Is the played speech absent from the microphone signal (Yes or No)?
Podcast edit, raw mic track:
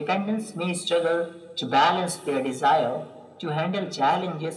No